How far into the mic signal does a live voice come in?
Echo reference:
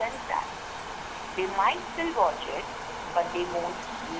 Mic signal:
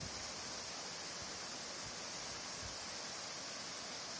none

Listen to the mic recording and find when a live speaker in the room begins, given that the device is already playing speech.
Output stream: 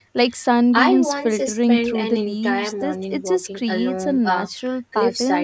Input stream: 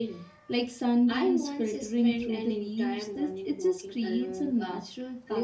none

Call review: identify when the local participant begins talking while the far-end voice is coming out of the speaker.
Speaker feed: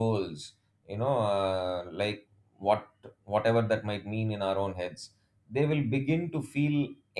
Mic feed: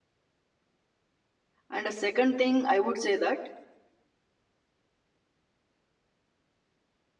1.7 s

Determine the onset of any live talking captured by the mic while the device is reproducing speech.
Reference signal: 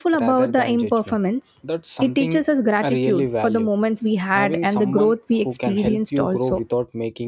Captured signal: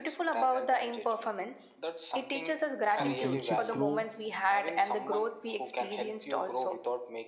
2.9 s

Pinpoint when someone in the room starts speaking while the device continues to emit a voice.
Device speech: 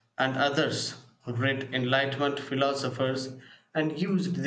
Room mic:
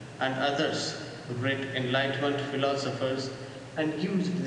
none

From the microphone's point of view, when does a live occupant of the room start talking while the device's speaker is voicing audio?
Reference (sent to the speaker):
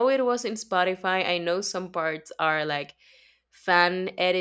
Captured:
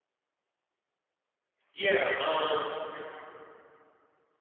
1.7 s

